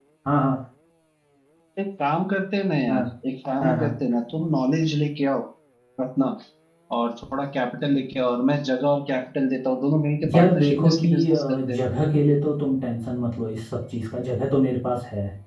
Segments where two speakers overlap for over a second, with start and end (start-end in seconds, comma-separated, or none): 10.3-11.8